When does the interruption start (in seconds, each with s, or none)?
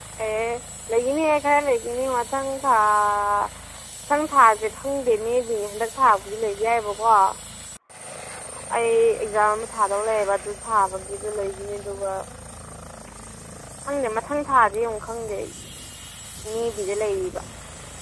none